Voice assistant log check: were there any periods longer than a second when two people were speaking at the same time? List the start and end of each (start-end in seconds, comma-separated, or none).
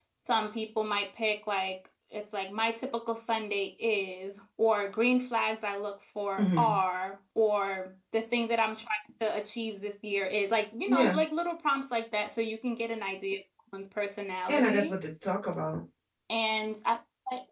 none